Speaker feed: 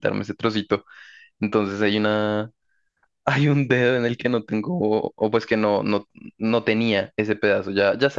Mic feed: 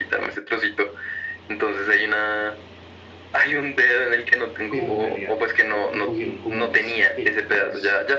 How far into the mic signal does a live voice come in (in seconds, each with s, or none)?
4.7 s